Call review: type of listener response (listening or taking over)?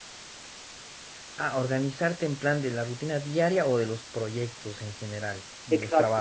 taking over